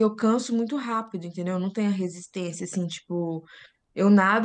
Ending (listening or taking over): listening